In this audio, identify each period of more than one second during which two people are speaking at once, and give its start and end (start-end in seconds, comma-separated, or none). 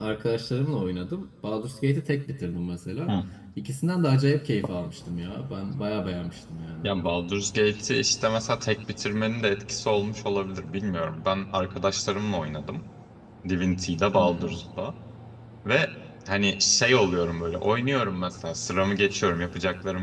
none